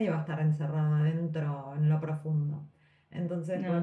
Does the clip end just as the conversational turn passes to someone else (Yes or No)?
No